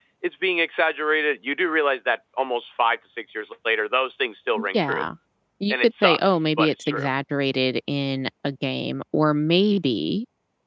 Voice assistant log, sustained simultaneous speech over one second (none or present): present